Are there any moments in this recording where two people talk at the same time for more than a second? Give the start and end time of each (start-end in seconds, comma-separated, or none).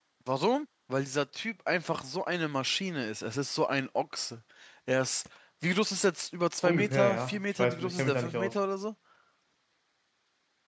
6.6-8.6